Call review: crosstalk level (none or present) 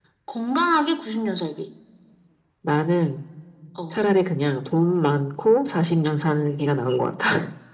none